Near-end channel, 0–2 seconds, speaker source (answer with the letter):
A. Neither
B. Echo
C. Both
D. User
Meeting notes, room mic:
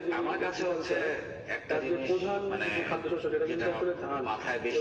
B